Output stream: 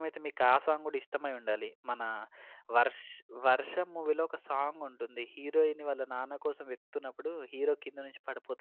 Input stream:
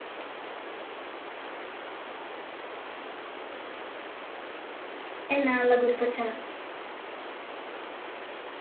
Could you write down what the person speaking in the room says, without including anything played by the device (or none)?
ఇన్నాళ్ళకి గుర్తొచ్చా